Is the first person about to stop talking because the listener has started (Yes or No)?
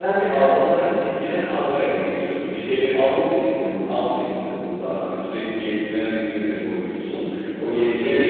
Yes